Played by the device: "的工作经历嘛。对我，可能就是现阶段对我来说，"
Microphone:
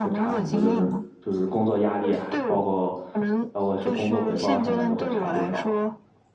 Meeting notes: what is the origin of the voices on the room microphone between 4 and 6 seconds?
both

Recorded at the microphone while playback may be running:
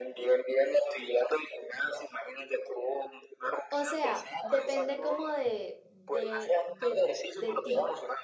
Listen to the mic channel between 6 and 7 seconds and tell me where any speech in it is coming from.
both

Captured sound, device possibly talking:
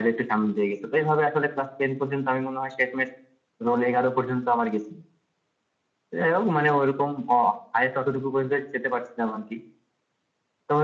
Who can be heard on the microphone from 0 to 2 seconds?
echo only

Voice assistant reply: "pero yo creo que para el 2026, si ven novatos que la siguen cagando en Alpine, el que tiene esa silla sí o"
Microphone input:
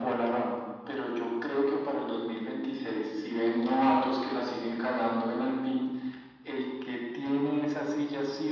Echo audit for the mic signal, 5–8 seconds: echo only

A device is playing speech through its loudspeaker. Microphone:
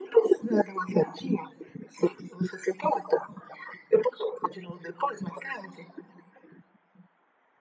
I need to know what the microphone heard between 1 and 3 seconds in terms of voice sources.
echo only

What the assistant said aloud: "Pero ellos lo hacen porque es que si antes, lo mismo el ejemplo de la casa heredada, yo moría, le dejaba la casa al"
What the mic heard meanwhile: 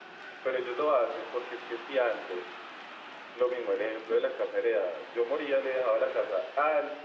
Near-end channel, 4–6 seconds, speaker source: echo only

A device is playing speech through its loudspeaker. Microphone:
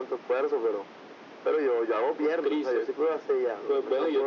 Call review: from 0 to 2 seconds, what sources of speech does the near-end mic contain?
echo only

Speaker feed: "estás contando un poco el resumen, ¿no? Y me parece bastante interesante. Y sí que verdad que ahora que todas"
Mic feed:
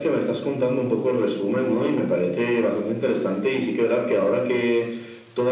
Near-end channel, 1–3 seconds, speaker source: echo only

